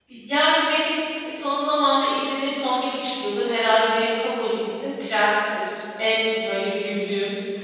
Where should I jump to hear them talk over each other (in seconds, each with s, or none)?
none